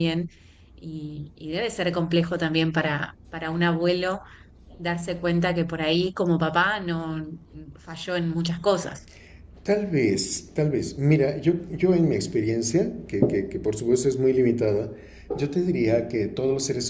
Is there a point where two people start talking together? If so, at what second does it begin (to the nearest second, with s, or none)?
none